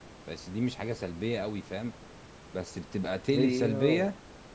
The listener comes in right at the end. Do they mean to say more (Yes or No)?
No